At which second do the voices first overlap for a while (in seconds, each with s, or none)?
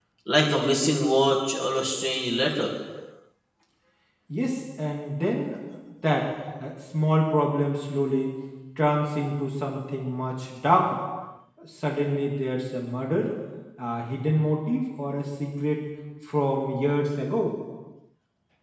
none